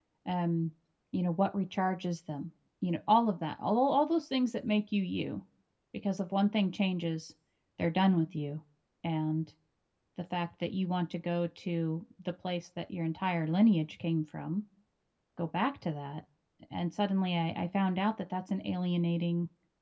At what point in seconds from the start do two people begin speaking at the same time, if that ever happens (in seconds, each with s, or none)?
none